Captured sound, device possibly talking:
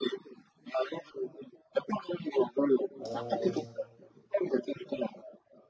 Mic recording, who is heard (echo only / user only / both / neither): both